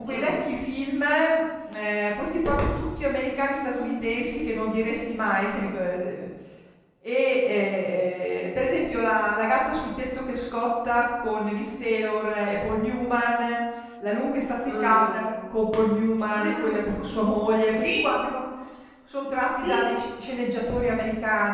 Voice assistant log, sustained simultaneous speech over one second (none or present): none